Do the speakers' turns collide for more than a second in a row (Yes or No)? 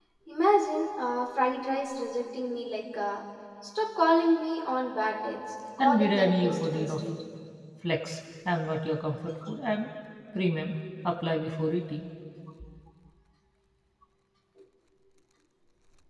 Yes